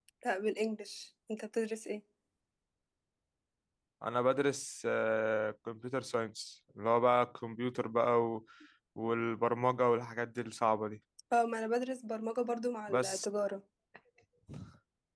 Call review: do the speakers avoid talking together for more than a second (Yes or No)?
Yes